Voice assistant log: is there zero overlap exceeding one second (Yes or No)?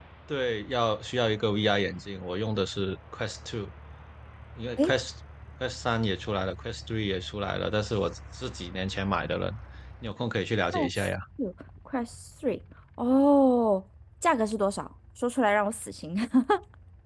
Yes